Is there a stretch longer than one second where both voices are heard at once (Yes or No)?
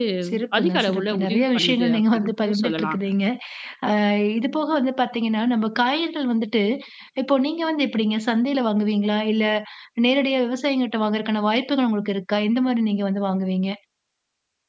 Yes